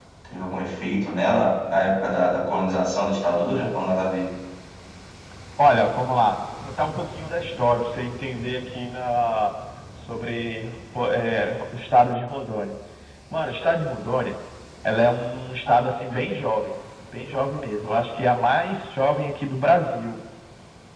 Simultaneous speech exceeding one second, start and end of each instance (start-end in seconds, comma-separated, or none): none